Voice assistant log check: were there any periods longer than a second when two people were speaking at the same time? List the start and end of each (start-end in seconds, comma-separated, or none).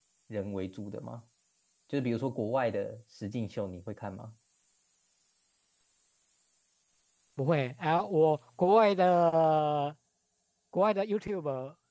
none